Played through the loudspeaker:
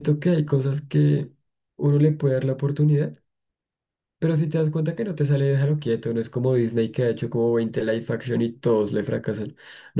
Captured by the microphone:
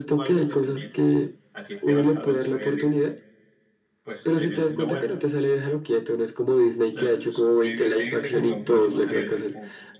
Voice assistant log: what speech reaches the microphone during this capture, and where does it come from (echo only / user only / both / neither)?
both